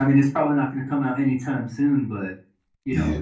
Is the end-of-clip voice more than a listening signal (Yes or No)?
No